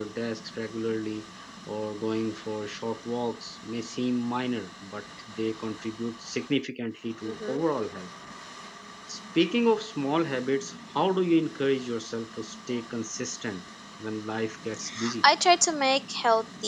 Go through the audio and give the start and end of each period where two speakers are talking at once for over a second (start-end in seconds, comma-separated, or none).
none